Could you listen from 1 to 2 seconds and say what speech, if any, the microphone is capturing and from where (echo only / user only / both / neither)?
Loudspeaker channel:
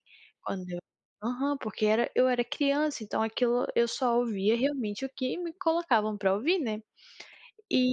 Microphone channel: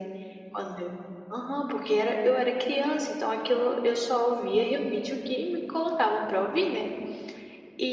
echo only